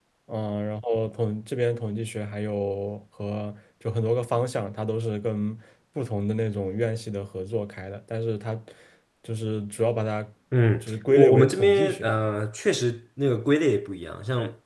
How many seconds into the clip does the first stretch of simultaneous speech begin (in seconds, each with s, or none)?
10.8 s